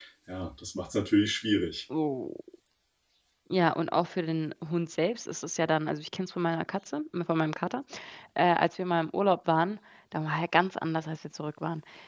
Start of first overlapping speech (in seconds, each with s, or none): none